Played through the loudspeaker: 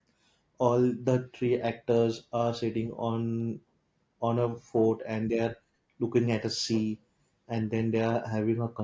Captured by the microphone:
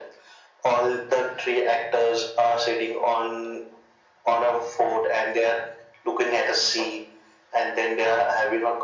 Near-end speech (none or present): none